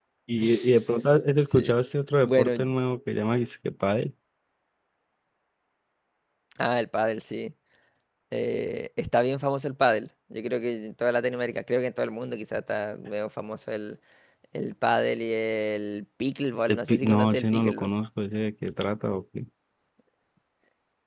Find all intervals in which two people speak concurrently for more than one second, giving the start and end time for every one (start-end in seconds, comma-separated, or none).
16.7-17.9